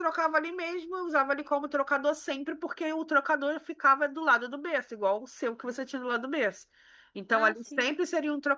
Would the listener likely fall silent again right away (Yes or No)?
Yes